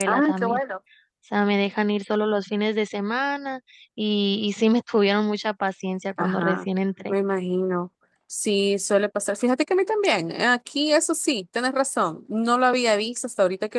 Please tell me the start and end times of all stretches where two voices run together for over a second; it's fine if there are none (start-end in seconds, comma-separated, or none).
none